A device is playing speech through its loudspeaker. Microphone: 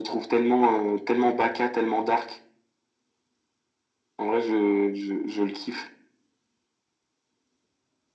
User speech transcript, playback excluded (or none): none